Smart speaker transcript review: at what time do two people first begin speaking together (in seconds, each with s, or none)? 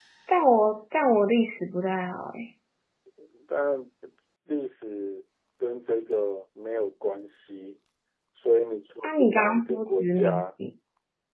9.0 s